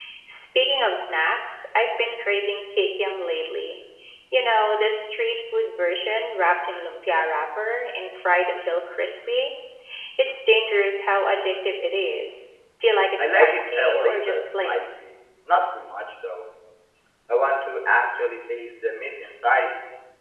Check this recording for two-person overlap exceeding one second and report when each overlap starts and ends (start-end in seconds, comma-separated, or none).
13.2-14.9